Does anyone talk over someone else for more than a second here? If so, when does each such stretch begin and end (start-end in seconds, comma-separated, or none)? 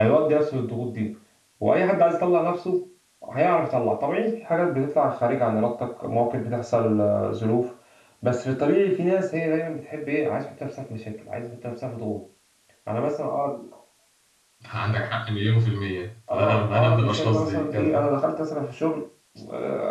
16.3-18.0